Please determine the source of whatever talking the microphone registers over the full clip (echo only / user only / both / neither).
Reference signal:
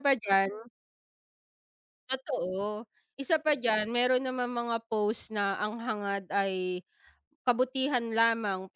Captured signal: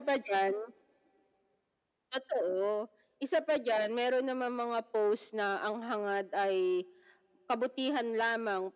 echo only